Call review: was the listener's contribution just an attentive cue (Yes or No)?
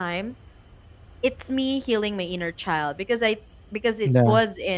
Yes